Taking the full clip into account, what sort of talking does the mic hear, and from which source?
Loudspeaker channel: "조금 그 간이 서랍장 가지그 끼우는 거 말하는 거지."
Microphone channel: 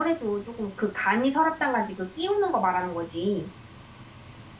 echo only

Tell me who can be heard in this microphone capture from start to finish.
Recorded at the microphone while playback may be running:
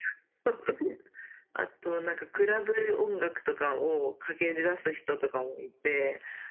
echo only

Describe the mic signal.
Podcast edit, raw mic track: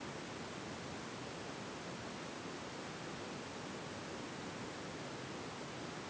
neither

